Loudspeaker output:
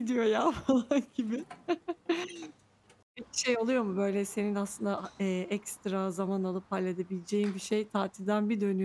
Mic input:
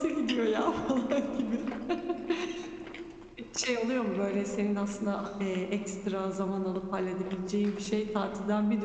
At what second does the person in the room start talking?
none

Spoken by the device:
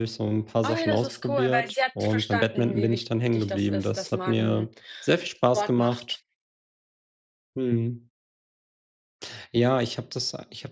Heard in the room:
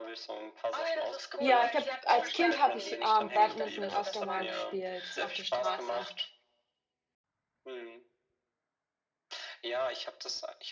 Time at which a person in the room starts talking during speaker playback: 1.4 s

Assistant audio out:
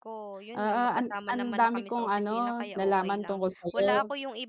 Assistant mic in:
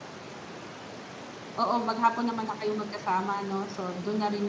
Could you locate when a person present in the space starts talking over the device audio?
1.6 s

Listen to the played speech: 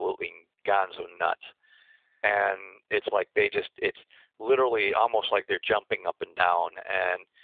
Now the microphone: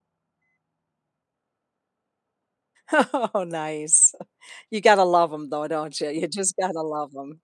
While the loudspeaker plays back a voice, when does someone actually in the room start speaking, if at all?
2.9 s

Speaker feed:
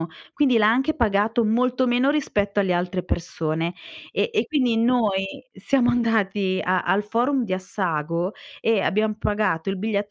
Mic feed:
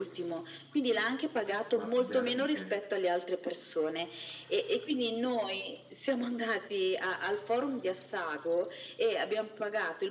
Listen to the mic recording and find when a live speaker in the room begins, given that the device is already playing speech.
1.7 s

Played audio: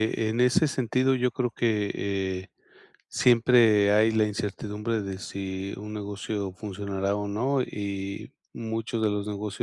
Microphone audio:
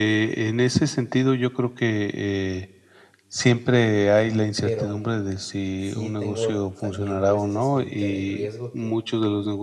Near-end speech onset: 4.6 s

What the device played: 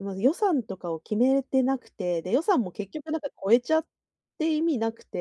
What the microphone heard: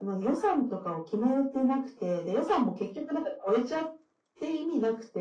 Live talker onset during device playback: none

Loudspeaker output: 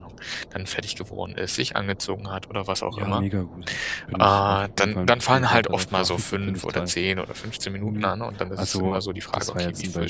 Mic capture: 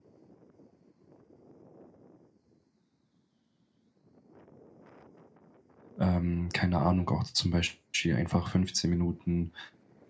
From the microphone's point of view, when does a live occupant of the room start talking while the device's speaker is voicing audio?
6.0 s

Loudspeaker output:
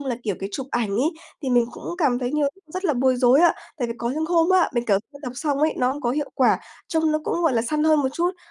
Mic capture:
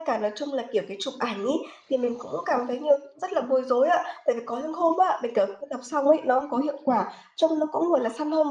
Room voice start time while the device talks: none

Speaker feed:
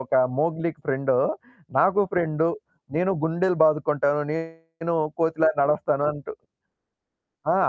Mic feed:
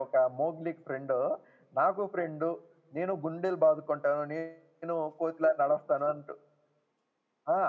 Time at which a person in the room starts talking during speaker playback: none

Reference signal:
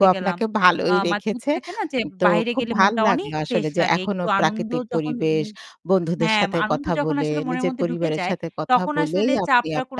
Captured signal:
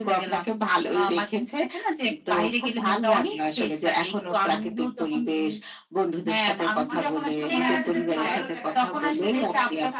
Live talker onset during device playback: 6.9 s

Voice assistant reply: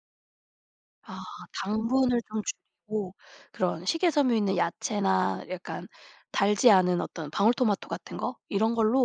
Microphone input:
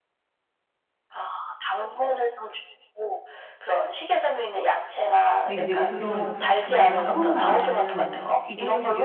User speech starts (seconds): 5.4 s

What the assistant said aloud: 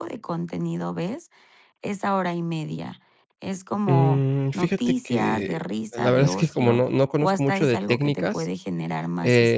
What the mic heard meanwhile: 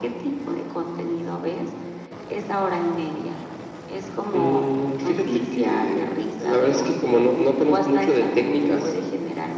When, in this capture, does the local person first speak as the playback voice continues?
none

